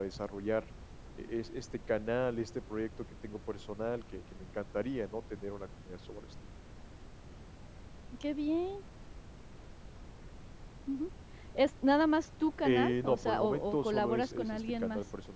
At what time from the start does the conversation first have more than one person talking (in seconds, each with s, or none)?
12.6 s